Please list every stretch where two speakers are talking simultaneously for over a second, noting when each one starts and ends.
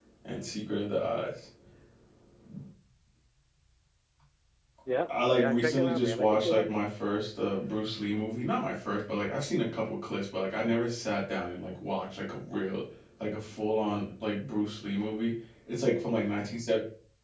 5.1-6.9

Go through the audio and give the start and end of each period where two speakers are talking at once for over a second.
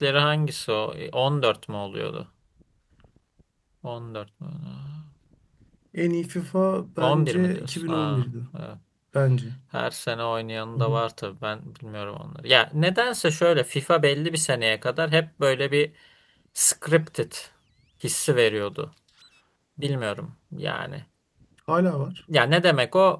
7.0-8.3

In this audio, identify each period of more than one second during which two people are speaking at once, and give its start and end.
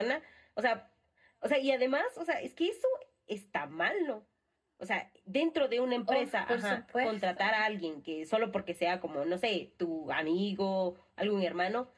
6.1-7.6

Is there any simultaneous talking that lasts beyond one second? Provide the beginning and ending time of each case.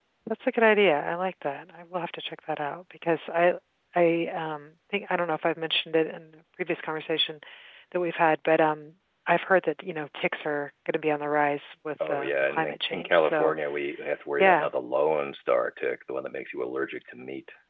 12.1-13.5

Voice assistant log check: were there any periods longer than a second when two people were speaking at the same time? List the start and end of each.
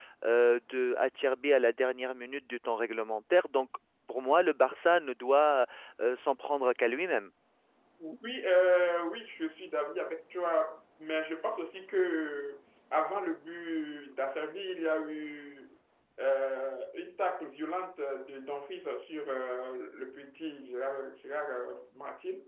none

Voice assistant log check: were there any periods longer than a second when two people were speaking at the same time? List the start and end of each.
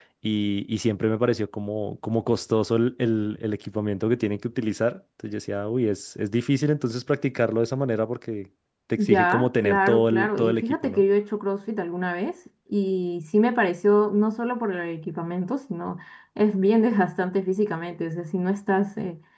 9.0-11.0

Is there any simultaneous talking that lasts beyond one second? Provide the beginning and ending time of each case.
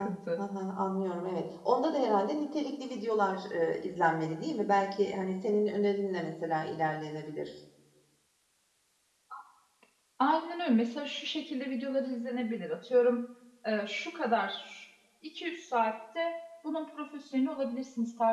none

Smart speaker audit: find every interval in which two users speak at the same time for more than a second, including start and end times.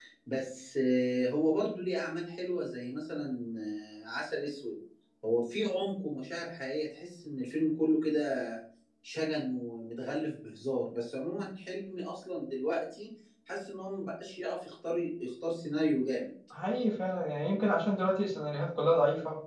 none

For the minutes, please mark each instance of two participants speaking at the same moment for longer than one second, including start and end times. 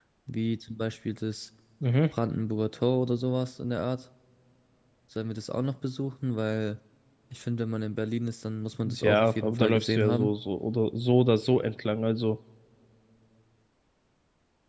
8.8-10.3

